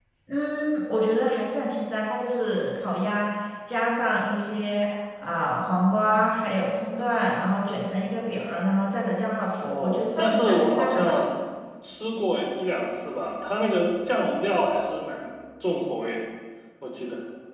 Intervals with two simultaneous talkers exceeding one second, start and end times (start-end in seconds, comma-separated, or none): 9.6-11.2